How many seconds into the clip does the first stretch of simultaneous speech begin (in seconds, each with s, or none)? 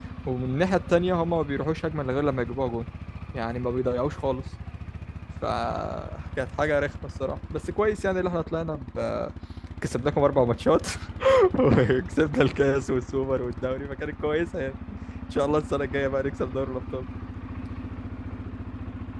none